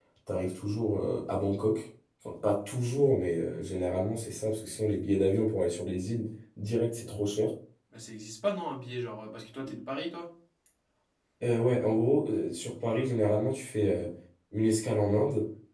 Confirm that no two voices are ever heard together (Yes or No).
Yes